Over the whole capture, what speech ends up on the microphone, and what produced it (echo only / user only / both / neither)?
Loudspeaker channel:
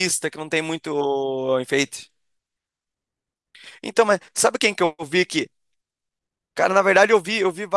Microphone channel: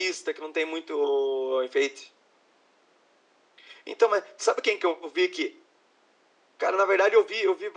echo only